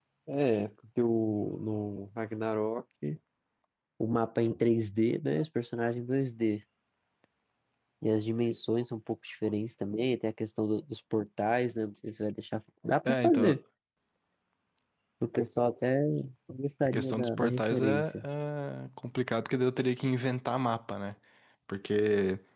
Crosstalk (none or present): present